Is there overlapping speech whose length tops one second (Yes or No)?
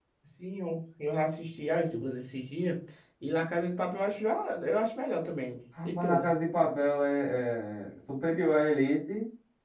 No